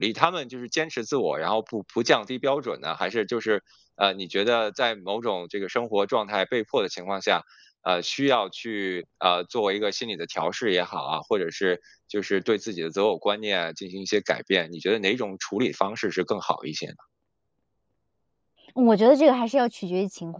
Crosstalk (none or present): none